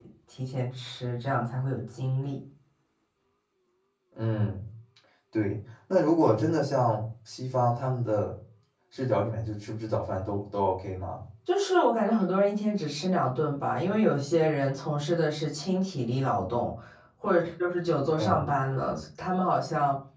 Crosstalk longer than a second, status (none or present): none